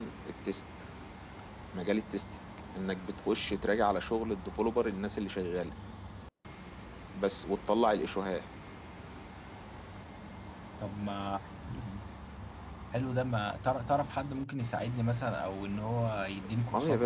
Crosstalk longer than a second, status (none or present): none